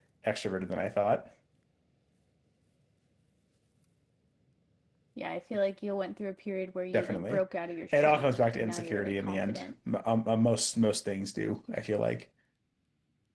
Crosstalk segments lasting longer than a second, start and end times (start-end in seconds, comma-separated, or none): 7.9-9.6